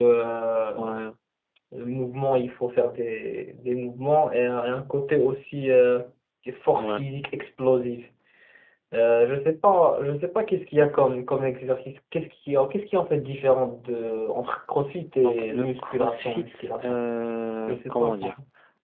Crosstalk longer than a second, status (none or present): present